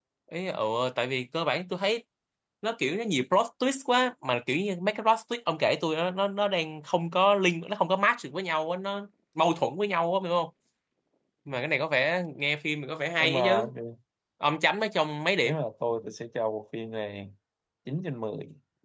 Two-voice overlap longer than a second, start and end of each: none

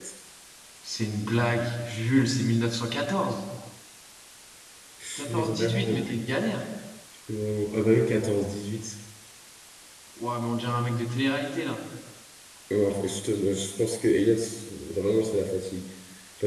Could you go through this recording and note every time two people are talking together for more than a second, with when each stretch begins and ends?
5.2-6.3

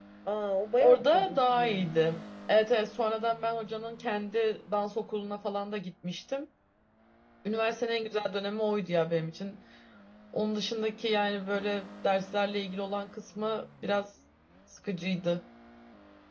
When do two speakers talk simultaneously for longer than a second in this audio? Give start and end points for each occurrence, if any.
0.8-2.0

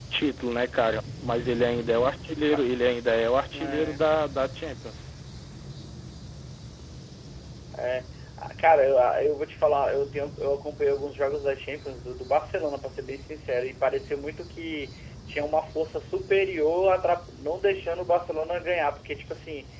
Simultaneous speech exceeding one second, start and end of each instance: none

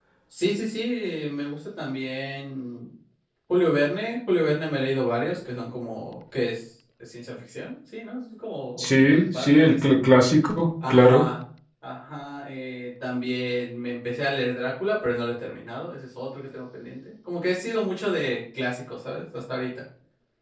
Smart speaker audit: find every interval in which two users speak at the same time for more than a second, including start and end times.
8.8-10.0

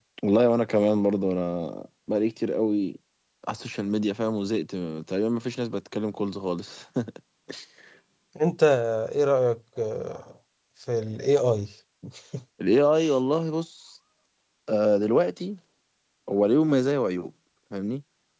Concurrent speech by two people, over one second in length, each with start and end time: none

